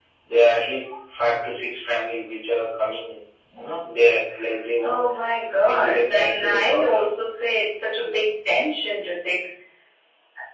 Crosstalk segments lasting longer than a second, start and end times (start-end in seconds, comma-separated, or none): 5.6-7.0